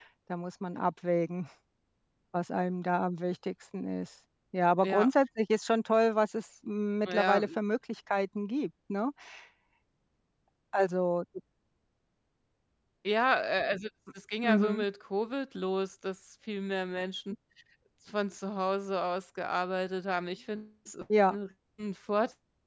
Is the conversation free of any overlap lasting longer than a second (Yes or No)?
Yes